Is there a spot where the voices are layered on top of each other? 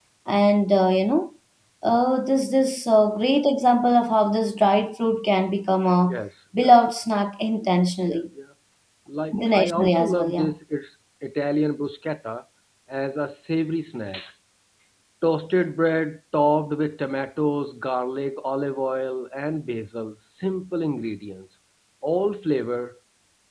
Yes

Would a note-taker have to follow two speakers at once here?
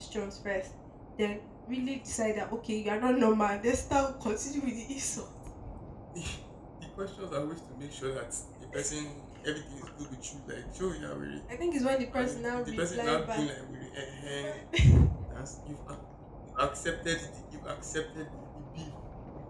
Yes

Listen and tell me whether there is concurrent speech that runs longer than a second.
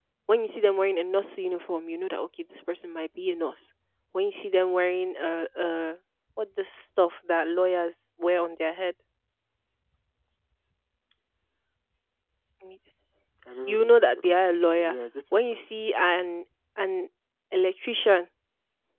Yes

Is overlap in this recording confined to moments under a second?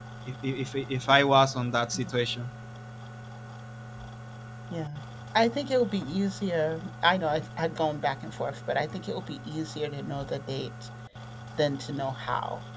Yes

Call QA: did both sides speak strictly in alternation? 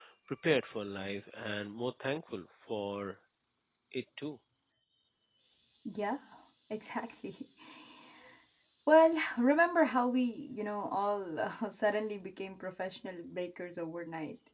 Yes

